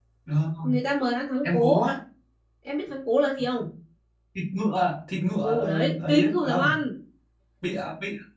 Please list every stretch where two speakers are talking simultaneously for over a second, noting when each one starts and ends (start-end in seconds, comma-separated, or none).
5.4-6.7